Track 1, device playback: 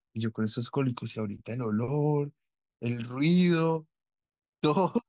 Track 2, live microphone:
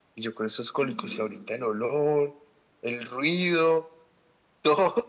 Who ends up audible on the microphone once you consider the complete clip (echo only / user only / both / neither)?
both